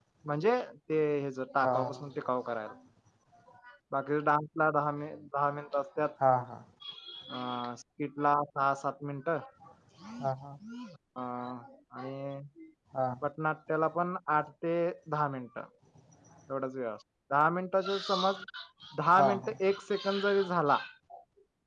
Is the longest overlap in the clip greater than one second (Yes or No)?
No